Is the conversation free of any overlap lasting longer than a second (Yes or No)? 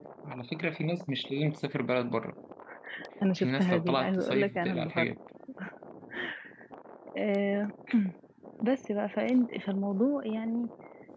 No